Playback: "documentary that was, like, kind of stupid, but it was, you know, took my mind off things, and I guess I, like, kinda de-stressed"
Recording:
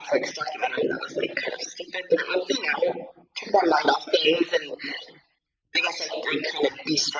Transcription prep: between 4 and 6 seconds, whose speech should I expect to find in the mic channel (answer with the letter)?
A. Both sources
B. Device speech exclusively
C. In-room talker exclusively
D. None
B